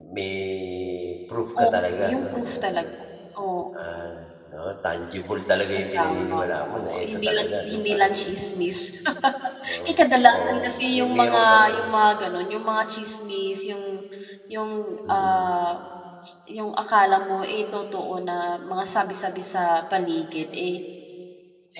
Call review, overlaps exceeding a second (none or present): present